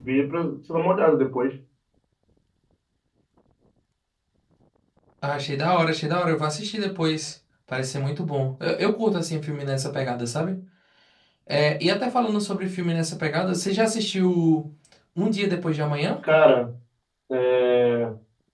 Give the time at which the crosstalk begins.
none

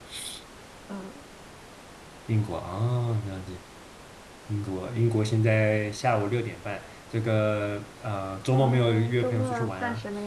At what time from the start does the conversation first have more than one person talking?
9 s

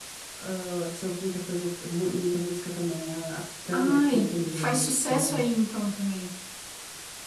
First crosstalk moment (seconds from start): 4 s

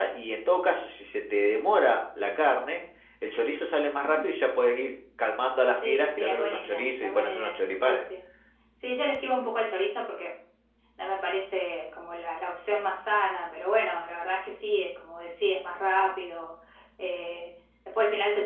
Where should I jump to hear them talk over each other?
6 s

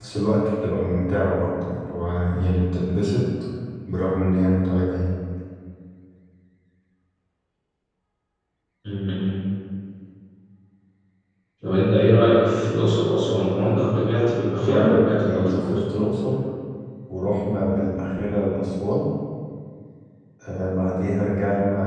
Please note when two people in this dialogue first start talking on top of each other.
15 s

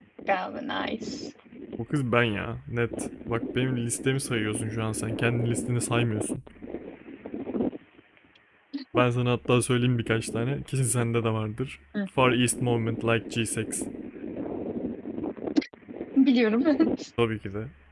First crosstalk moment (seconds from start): none

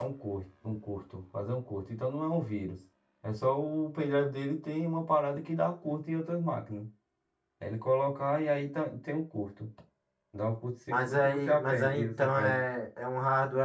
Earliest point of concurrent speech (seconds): 11 s

